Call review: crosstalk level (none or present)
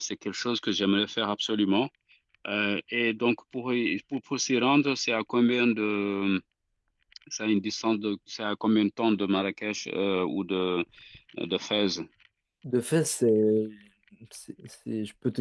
none